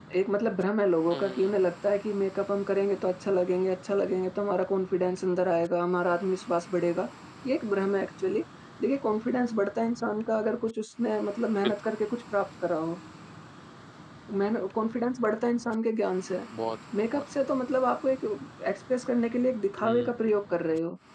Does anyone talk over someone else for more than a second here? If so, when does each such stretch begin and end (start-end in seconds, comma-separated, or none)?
none